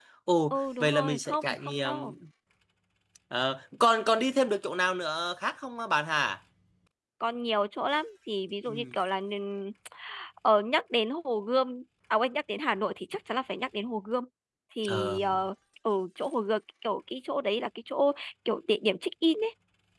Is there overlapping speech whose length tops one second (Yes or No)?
Yes